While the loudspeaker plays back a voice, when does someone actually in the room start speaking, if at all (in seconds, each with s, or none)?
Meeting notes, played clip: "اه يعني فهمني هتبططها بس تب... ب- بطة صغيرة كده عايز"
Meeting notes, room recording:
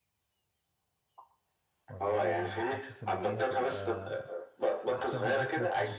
1.9 s